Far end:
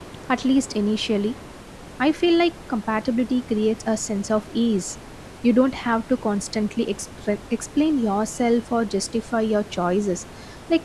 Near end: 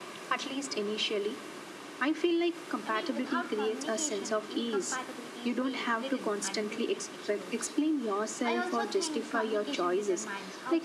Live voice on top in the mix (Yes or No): No